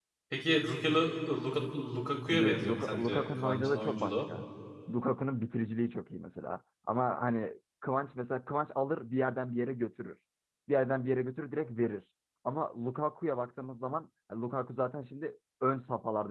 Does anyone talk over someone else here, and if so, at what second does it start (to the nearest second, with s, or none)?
2 s